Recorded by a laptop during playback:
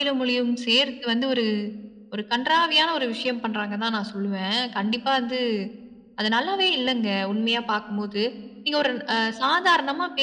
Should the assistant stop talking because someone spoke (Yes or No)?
No